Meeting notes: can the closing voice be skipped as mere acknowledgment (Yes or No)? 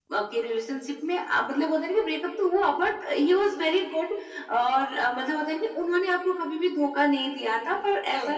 Yes